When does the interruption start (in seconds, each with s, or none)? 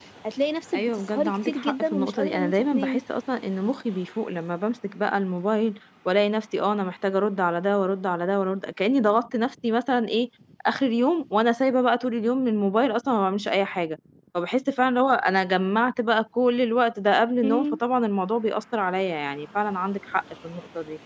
0.7 s